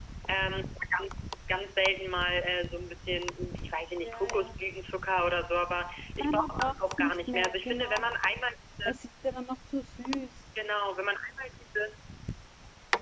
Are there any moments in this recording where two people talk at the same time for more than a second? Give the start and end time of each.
6.2-8.1

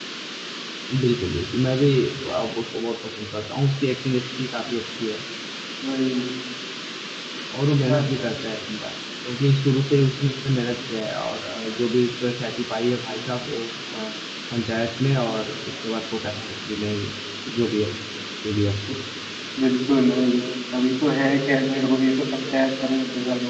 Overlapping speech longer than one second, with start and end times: none

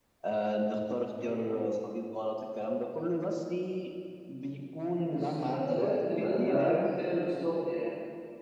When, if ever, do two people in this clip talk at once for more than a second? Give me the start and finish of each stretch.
5.0-6.9

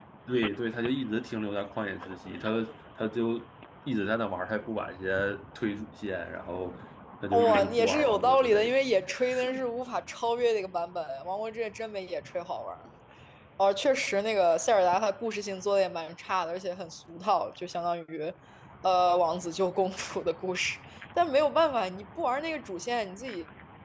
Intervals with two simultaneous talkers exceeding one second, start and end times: 7.3-8.8

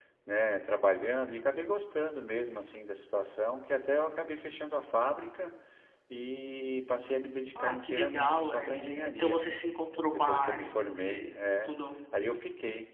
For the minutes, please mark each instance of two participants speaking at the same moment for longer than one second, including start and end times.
7.6-9.4, 10.1-11.8

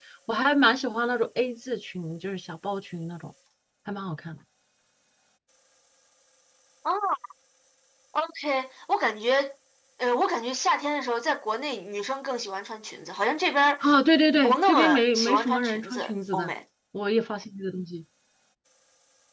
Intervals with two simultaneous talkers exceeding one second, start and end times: 14.4-16.5

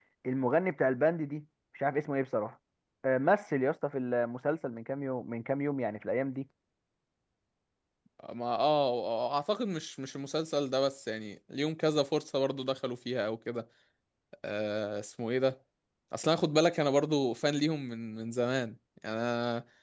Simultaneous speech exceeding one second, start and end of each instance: none

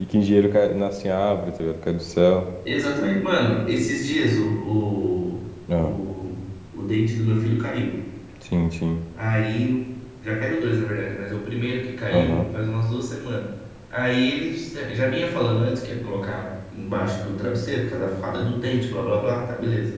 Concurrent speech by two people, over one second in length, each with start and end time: none

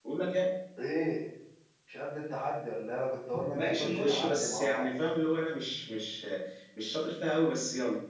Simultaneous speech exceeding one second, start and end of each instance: 3.5-4.9

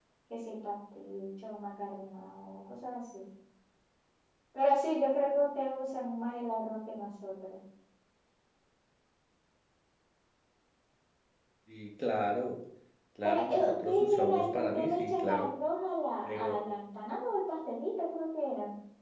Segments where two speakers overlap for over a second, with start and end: 13.2-15.5

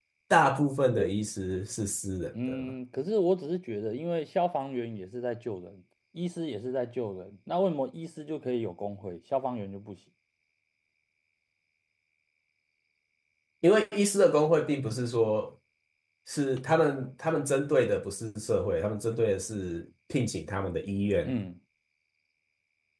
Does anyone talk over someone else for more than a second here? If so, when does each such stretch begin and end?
none

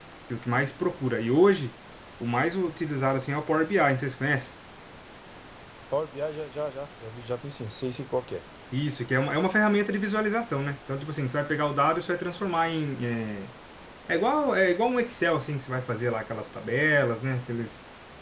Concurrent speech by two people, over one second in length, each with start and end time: none

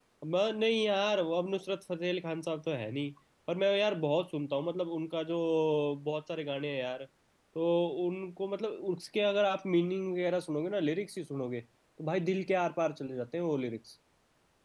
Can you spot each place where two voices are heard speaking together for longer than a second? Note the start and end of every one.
none

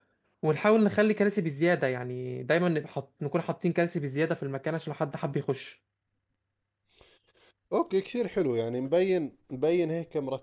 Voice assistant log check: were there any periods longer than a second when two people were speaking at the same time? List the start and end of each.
none

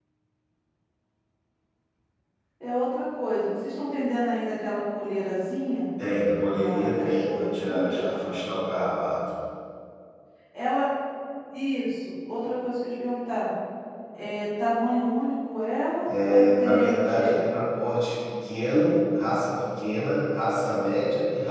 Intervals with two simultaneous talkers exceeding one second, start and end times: 6.5-8.1, 16.1-17.4

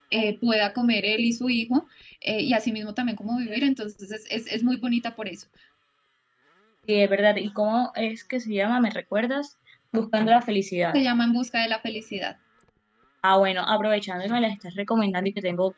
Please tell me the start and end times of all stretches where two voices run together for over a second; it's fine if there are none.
none

